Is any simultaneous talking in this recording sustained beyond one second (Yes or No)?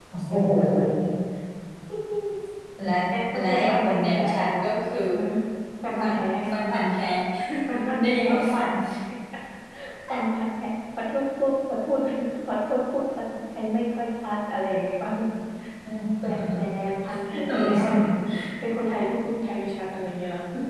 Yes